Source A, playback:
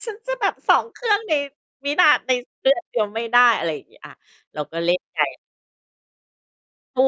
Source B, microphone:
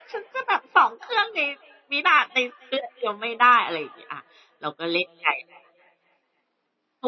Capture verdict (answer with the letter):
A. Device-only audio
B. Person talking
A